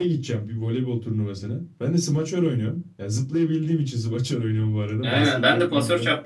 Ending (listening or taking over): taking over